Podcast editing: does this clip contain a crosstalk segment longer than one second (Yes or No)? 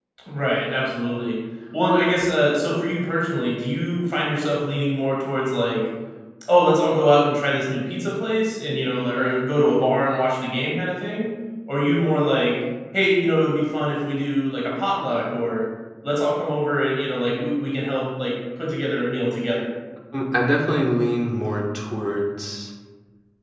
No